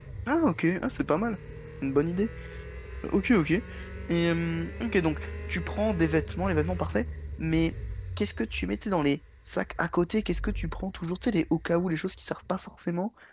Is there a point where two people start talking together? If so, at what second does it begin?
none

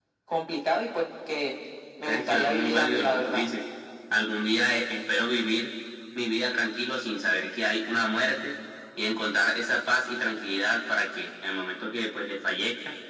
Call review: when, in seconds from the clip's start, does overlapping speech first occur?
2 s

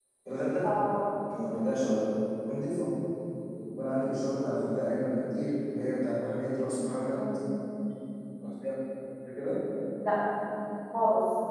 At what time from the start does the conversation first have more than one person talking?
none

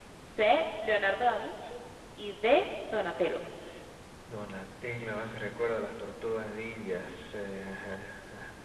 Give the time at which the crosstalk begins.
none

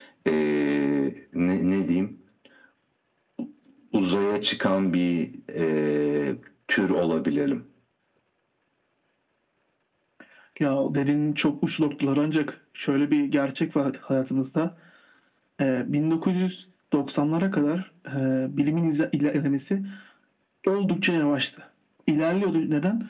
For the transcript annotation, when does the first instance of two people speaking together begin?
none

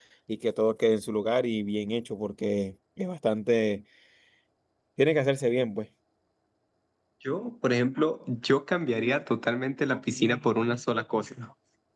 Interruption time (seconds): none

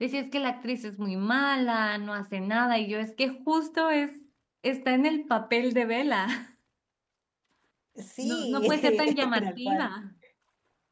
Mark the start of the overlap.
8 s

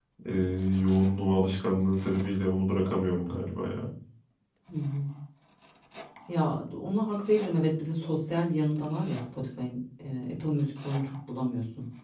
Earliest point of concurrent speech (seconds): none

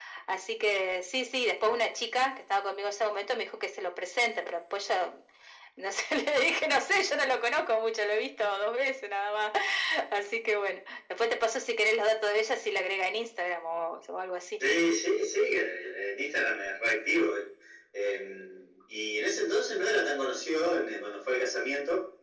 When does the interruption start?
none

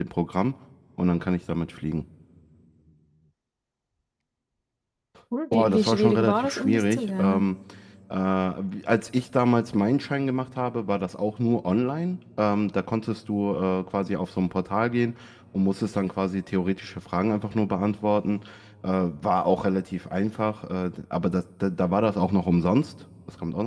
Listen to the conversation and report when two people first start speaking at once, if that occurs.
6 s

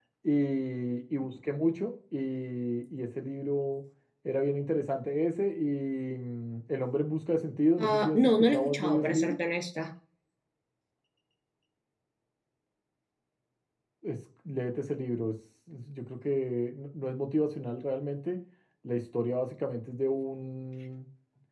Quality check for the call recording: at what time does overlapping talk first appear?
8 s

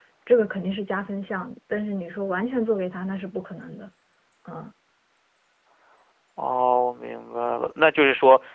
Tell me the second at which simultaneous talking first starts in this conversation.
none

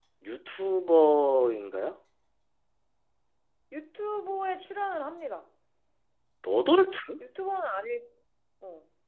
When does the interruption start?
none

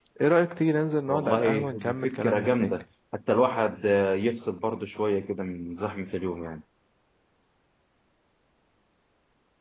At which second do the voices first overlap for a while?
1 s

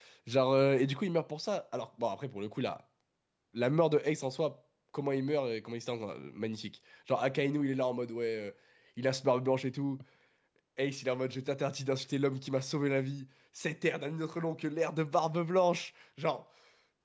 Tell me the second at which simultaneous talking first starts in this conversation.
none

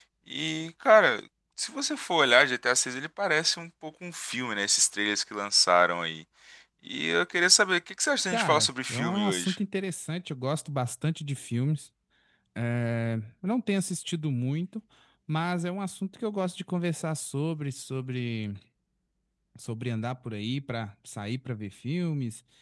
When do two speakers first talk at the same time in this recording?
8 s

